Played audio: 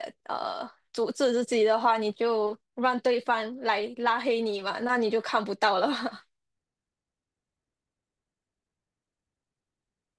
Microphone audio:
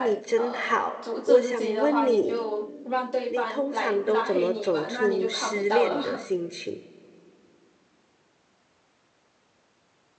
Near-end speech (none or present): present